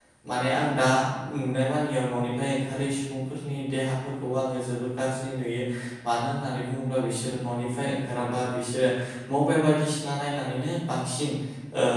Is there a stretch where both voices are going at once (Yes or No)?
No